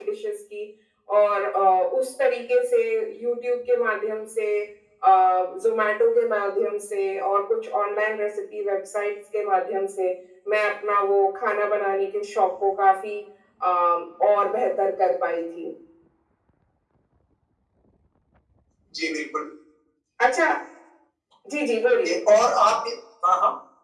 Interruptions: none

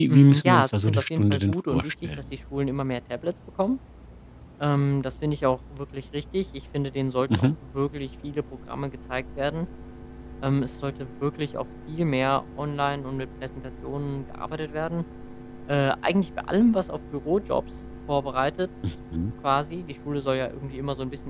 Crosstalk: present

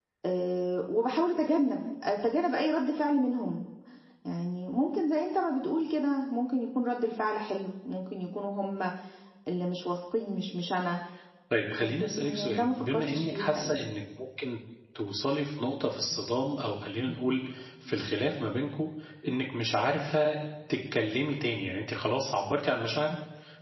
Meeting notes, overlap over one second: present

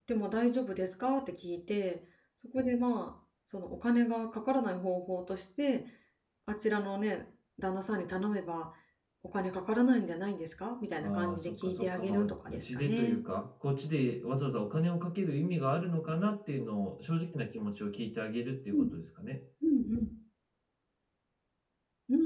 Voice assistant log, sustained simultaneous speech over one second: present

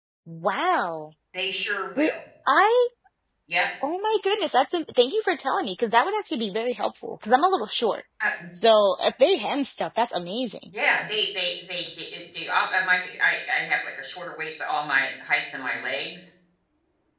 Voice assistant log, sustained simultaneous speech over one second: none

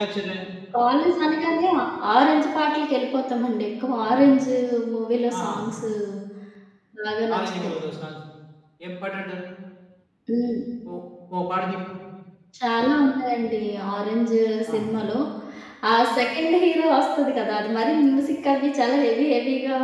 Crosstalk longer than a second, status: none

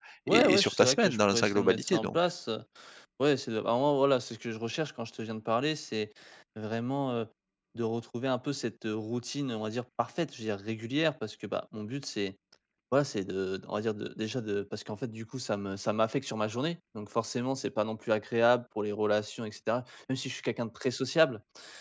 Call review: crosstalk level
present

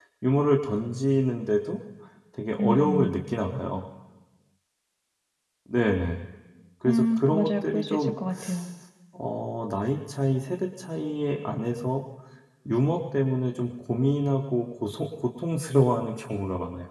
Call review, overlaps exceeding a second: present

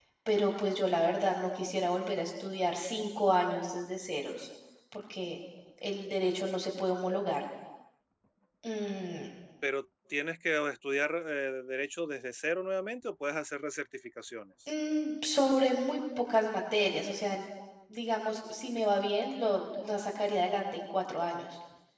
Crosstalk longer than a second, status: none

